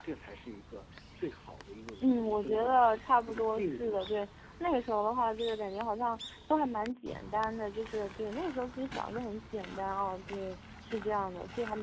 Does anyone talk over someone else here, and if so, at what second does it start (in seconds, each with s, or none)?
2.0 s